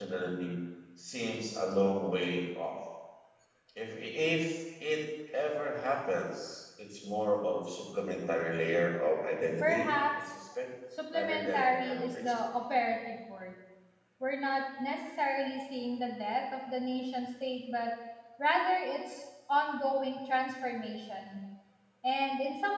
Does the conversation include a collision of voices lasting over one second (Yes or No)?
Yes